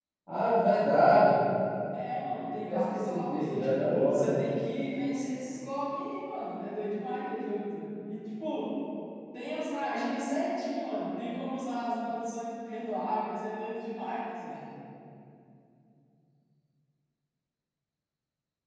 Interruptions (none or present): present